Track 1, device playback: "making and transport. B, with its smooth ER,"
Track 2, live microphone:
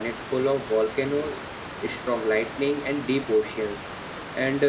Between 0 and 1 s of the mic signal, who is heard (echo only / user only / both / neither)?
user only